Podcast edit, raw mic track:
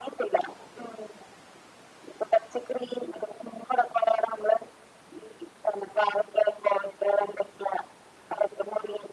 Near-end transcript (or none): none